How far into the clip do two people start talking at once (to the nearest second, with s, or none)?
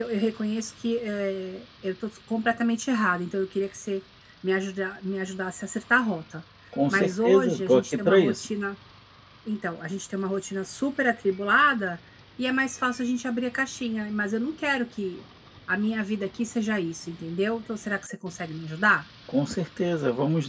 7 s